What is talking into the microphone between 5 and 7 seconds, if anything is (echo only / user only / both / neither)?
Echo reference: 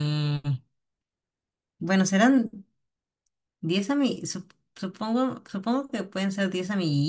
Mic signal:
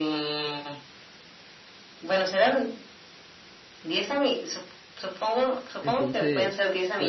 both